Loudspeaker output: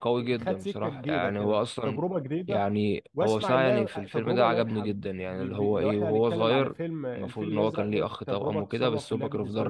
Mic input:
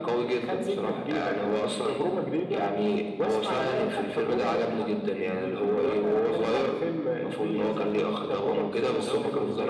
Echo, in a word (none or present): present